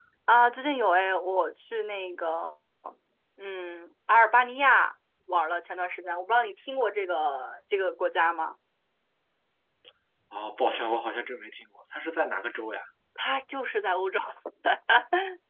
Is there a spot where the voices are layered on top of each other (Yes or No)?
No